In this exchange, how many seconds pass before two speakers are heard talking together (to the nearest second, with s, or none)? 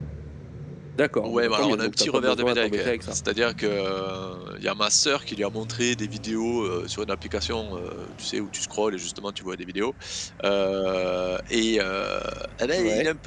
1 s